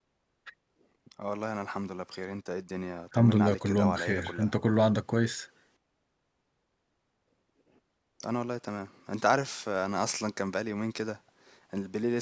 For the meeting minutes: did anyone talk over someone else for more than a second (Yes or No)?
Yes